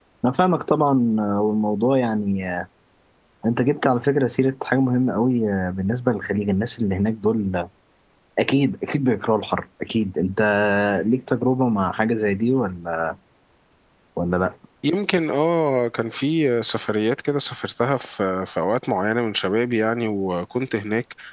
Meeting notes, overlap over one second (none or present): none